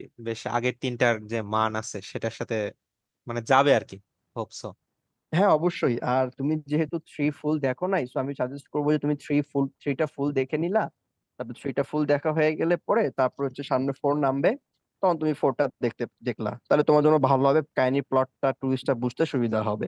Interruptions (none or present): none